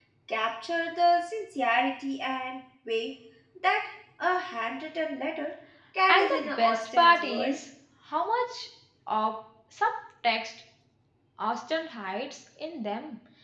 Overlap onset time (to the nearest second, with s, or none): 6 s